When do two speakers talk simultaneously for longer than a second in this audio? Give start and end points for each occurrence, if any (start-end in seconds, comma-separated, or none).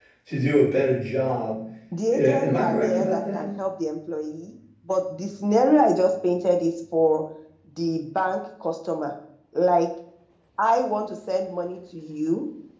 2.1-3.5